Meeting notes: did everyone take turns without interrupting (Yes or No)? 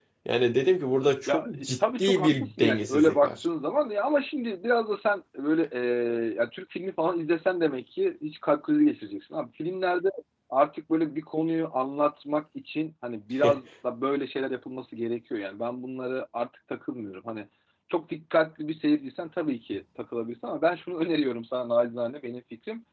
No